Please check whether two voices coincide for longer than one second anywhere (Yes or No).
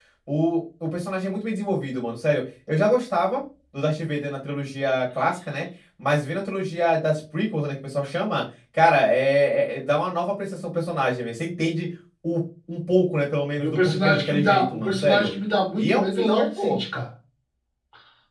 Yes